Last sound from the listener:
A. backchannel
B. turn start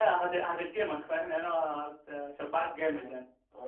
B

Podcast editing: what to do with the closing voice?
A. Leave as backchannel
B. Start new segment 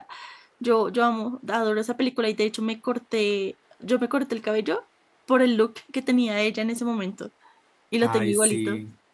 B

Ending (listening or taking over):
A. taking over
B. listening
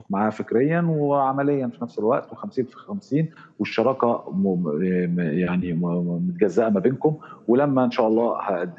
B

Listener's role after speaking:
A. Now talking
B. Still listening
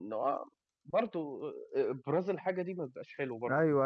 A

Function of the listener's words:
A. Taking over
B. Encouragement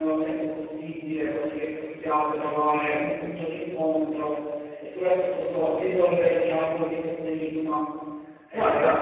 A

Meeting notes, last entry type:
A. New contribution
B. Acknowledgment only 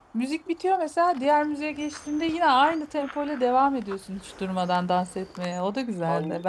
A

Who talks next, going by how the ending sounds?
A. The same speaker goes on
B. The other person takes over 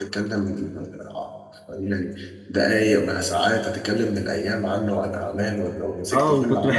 B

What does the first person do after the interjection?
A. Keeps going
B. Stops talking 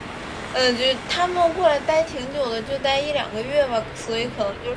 A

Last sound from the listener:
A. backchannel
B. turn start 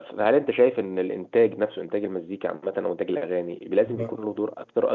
A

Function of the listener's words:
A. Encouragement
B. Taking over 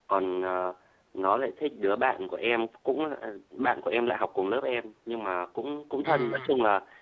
A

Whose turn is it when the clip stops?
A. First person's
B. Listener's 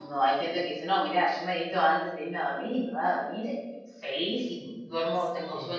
A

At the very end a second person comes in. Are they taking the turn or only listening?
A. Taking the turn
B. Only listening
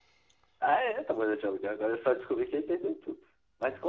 B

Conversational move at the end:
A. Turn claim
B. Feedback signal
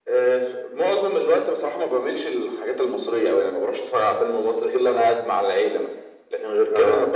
B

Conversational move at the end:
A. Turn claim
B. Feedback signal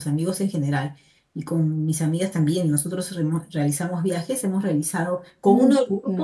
B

